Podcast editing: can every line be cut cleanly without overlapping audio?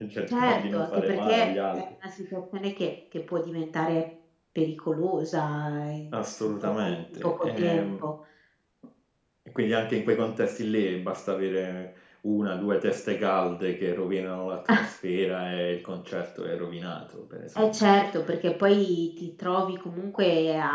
No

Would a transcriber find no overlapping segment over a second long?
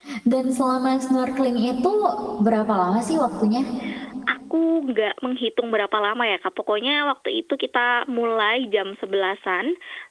Yes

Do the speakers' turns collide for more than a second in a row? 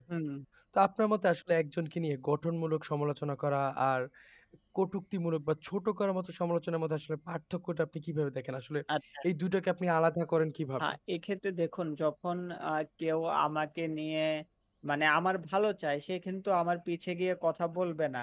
No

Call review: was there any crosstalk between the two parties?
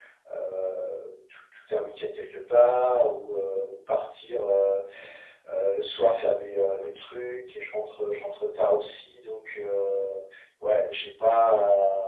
No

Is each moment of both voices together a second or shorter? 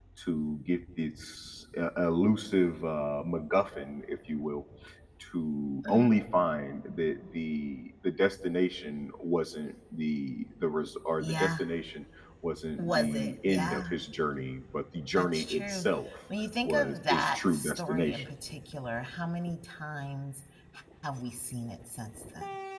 No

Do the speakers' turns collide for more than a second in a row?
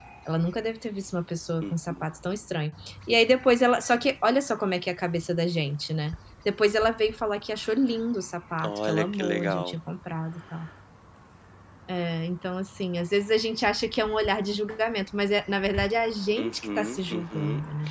Yes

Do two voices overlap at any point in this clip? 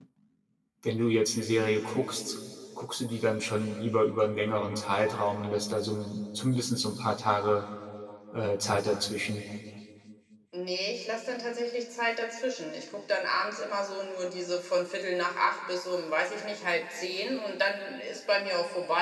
No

